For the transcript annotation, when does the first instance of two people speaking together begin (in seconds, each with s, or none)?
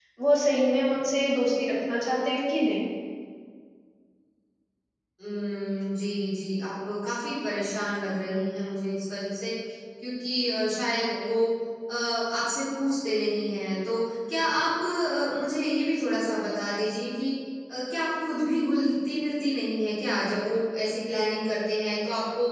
none